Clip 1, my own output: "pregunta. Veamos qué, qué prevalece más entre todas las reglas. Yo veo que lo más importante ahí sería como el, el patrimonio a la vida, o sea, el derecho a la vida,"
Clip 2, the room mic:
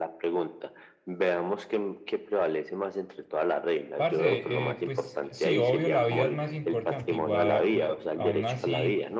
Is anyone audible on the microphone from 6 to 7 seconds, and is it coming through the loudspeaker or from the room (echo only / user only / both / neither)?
both